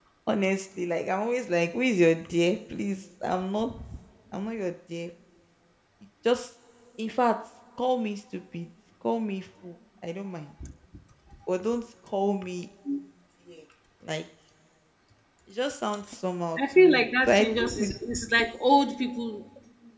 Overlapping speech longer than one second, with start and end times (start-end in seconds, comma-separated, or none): 16.7-17.9